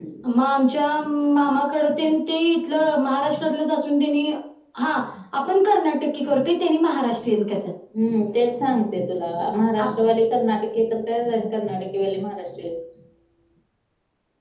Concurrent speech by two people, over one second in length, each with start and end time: none

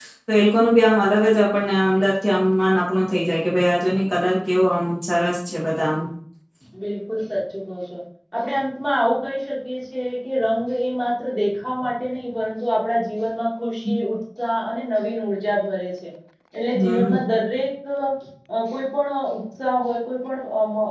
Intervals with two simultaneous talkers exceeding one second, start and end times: none

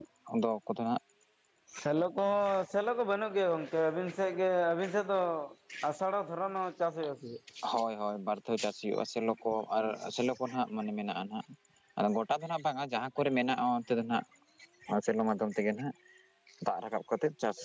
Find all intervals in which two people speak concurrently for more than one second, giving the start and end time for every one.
none

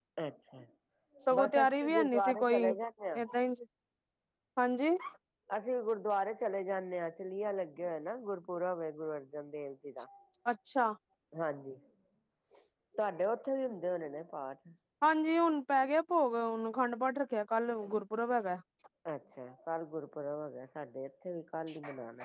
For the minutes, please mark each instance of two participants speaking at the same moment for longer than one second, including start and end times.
1.3-2.7

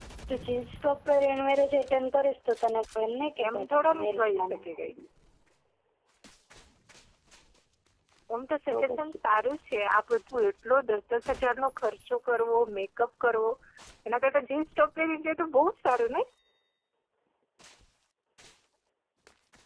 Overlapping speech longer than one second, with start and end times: 3.5-4.8

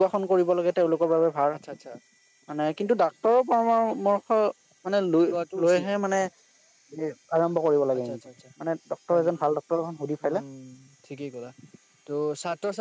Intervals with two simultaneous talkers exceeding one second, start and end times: none

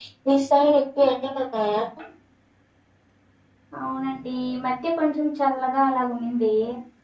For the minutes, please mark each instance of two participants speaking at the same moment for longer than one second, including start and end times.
none

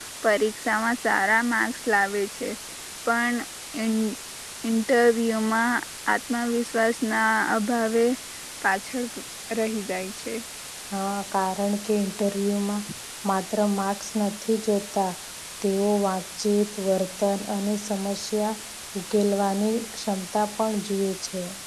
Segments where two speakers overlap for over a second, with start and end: none

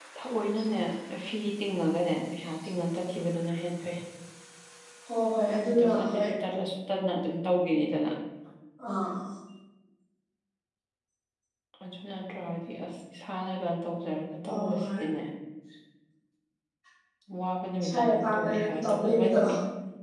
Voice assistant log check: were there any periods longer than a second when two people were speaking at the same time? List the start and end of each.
17.8-19.4

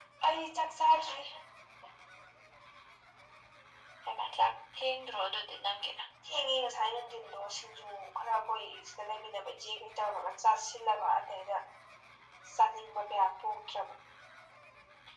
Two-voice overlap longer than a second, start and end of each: none

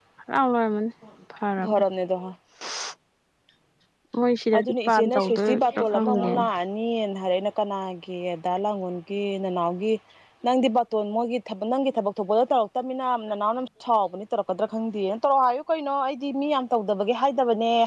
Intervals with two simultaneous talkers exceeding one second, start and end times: 4.6-6.5

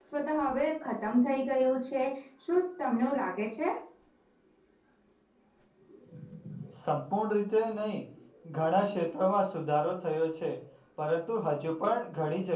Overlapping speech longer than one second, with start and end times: none

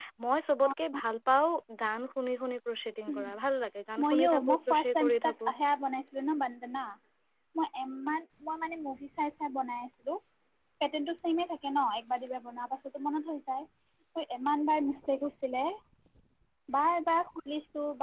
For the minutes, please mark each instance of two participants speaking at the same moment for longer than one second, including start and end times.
4.0-5.5

